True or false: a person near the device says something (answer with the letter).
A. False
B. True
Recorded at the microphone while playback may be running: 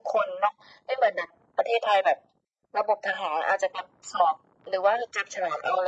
A